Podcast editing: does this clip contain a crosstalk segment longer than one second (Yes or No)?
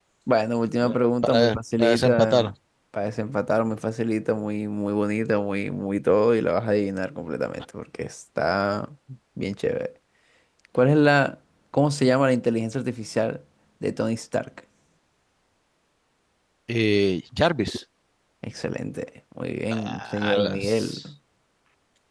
Yes